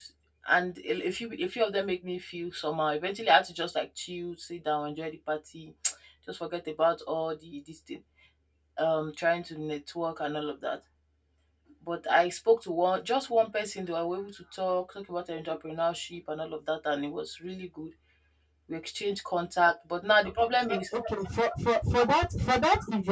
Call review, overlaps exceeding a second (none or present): none